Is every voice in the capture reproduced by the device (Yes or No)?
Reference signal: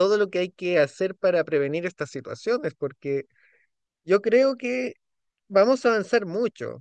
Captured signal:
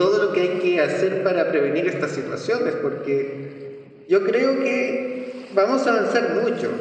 Yes